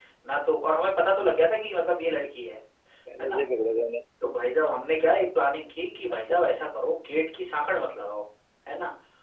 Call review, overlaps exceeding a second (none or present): none